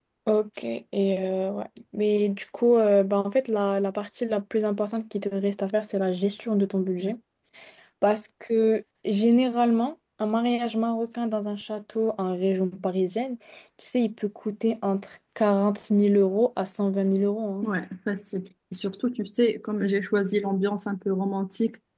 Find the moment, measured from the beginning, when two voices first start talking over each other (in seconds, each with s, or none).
none